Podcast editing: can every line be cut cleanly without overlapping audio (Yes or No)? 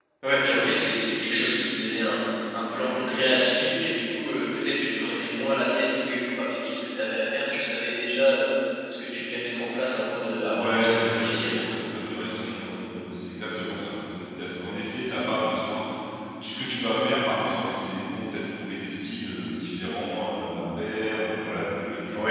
No